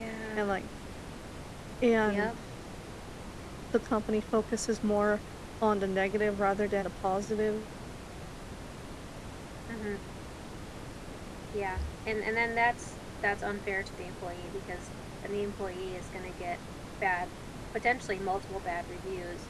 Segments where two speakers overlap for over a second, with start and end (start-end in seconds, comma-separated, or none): none